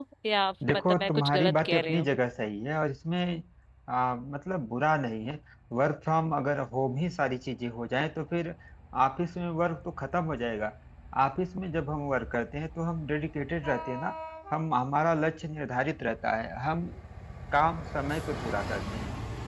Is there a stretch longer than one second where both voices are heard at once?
Yes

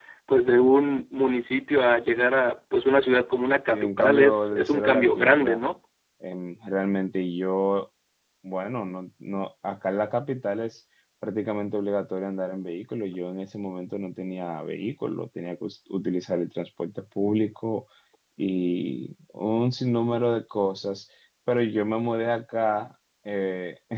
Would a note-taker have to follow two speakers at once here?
Yes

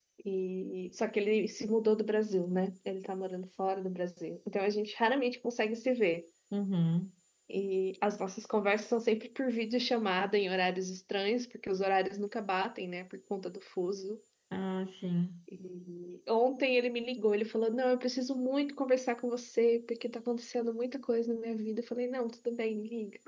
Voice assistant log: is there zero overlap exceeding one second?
Yes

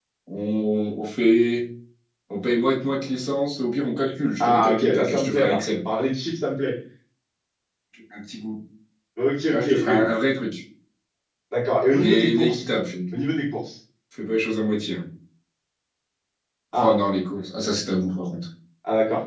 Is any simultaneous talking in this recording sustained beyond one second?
Yes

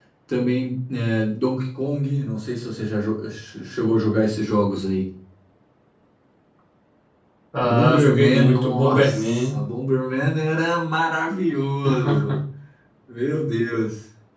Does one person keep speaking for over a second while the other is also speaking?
Yes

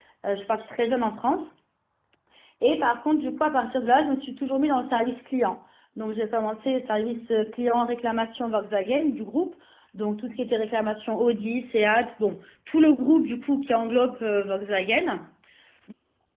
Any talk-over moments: No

